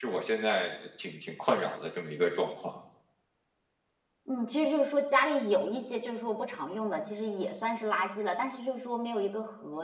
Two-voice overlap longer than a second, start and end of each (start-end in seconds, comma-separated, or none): none